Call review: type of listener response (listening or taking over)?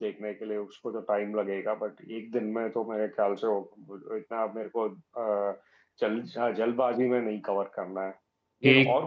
listening